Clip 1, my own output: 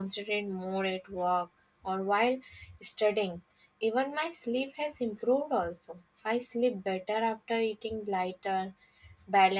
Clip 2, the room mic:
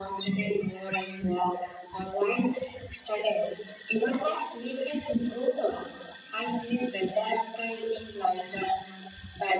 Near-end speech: none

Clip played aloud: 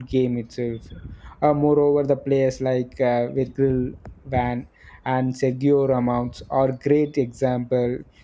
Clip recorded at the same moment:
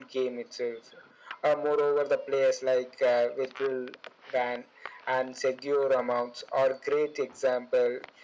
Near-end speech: none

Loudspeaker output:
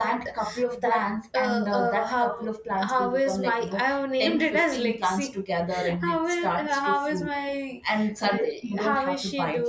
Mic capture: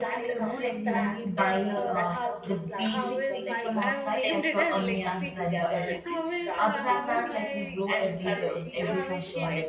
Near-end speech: present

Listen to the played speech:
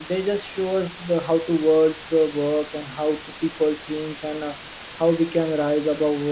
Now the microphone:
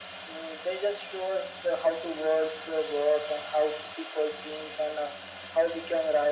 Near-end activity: none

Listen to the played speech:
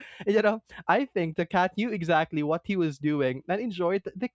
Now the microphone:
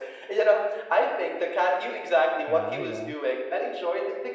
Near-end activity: present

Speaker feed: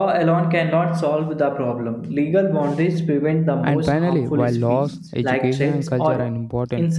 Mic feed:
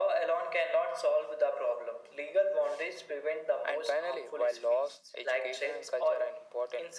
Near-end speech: none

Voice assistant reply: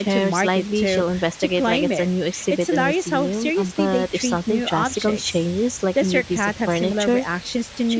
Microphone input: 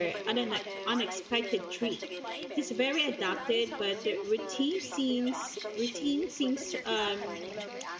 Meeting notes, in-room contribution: present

